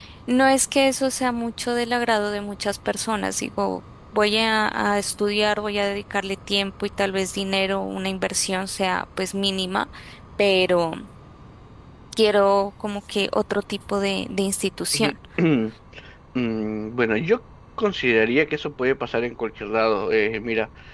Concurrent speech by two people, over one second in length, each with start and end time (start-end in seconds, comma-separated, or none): none